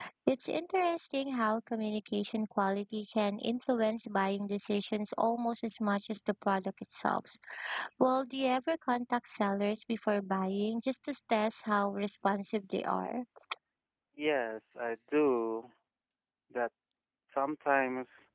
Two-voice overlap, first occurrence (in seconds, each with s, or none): none